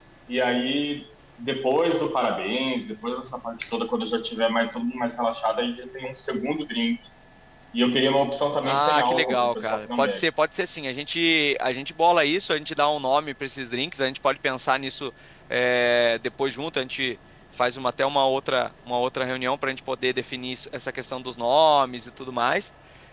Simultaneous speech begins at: 8.6 s

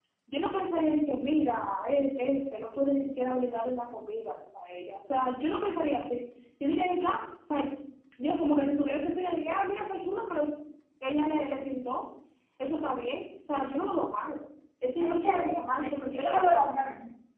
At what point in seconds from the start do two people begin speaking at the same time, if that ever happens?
15.0 s

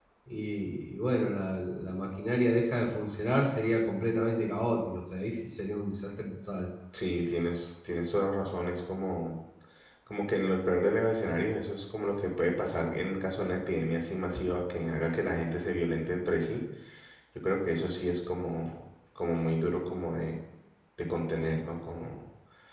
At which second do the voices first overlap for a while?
none

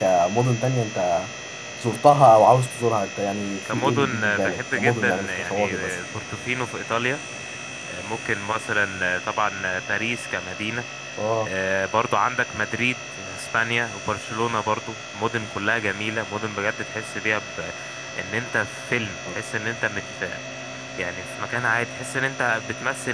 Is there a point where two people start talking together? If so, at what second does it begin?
3.6 s

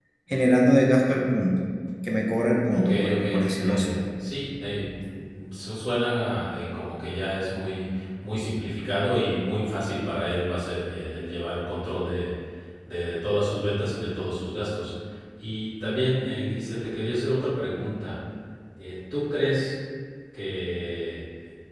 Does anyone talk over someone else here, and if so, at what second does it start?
2.7 s

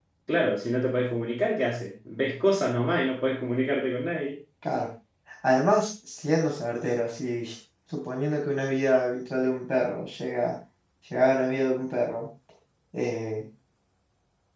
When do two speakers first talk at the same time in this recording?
none

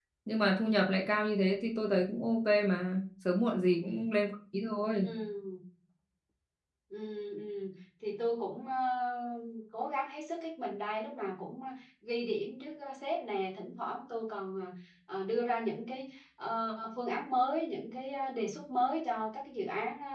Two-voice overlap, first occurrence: none

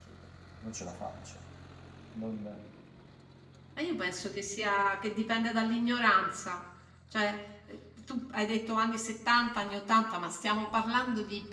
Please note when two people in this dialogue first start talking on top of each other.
none

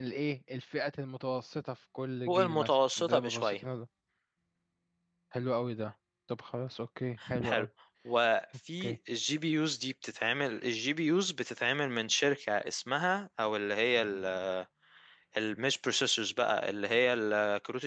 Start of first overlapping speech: 2.3 s

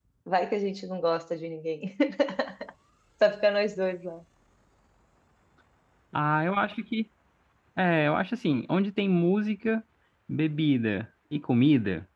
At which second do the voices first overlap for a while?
none

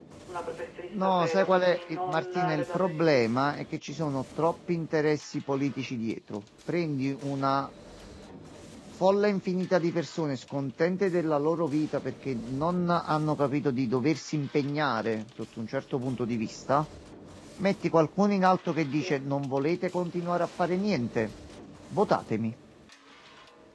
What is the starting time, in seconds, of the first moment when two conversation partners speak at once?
0.9 s

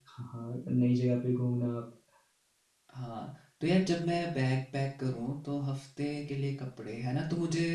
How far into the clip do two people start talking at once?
none

